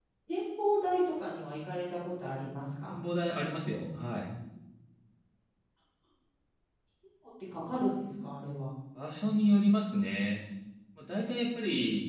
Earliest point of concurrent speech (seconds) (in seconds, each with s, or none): none